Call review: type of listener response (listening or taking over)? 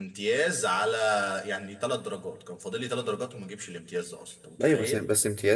taking over